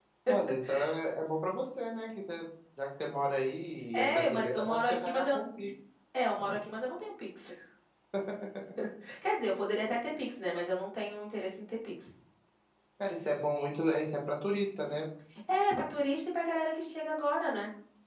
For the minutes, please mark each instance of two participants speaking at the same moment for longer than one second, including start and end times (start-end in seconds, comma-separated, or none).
3.9-5.3